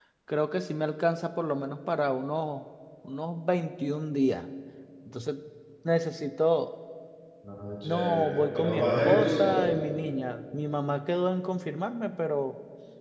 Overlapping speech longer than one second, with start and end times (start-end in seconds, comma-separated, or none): 7.8-9.7